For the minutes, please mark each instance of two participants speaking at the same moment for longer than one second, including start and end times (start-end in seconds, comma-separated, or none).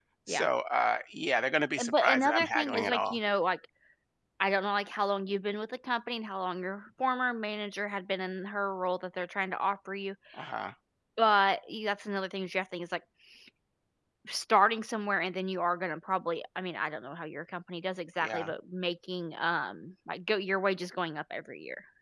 1.8-3.2